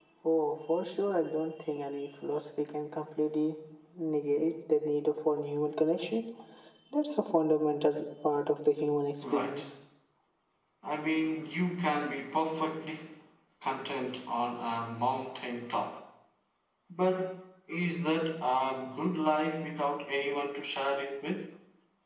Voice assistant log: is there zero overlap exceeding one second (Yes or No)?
Yes